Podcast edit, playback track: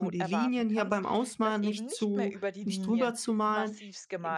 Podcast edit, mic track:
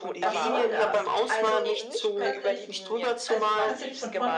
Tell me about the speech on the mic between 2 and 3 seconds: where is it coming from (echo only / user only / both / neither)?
both